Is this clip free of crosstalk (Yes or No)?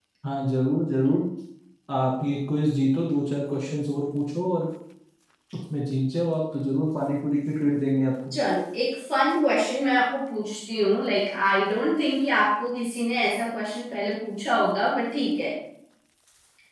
Yes